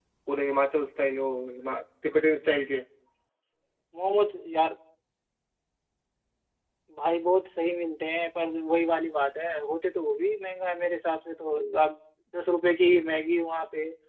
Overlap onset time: none

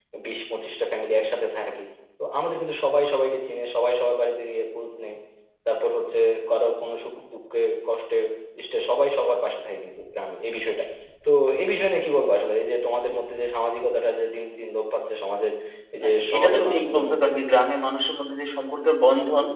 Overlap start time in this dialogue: 16.0 s

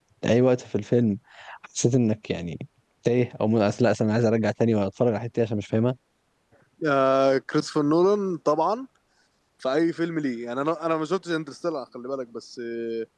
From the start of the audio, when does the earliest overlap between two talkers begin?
none

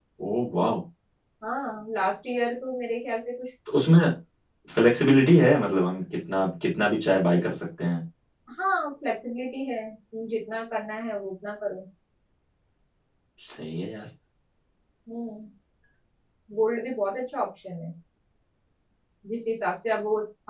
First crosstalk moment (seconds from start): none

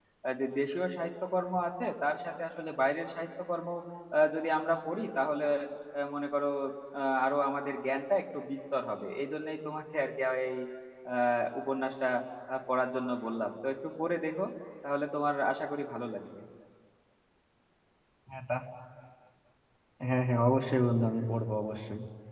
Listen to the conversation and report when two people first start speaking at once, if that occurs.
none

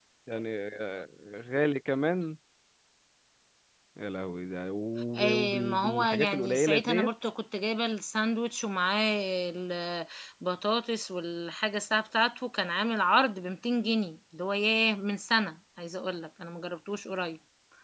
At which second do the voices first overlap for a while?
5.2 s

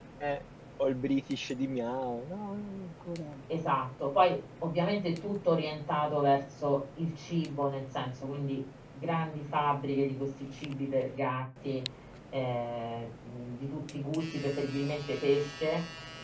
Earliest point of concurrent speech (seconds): none

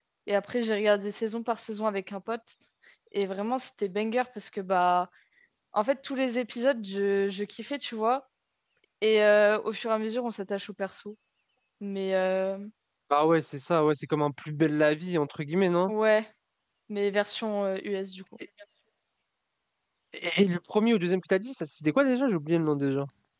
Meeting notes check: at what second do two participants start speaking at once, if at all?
none

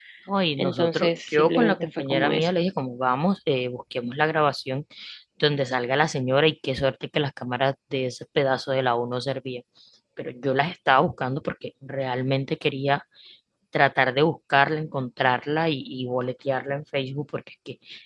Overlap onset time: 0.6 s

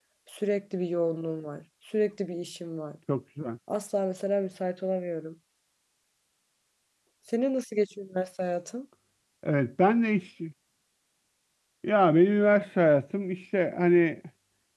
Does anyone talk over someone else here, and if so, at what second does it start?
none

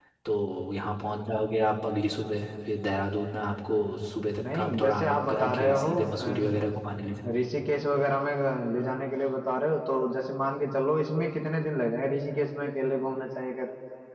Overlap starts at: 4.4 s

